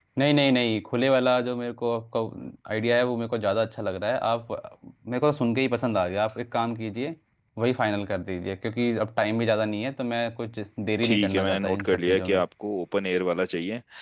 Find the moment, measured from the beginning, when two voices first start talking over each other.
11.0 s

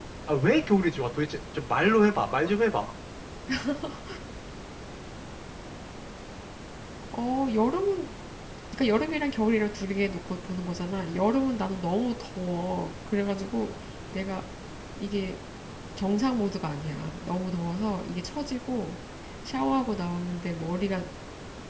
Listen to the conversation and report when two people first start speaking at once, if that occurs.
none

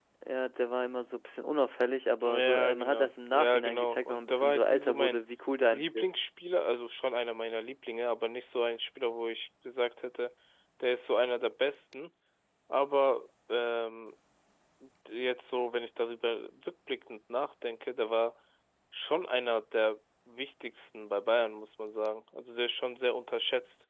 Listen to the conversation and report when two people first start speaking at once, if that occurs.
2.2 s

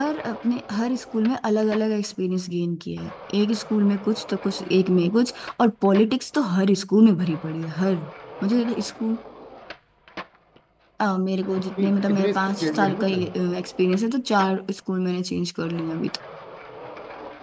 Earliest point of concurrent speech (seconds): 11.8 s

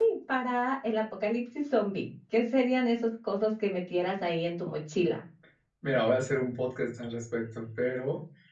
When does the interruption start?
none

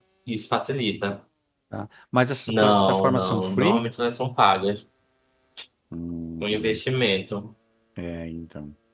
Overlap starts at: 2.5 s

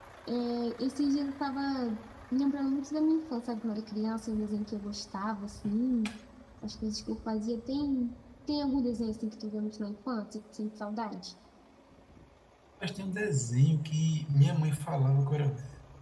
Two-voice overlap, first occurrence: none

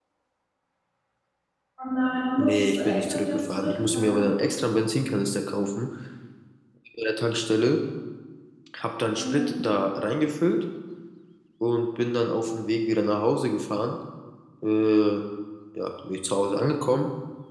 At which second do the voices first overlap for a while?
2.4 s

